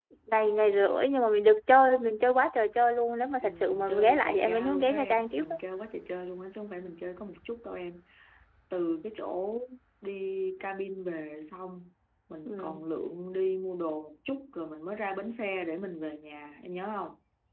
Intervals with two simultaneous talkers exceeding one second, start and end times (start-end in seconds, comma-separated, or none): 3.4-5.4